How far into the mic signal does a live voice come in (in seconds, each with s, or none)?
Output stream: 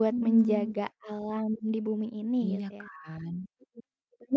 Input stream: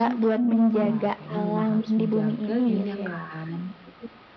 0.8 s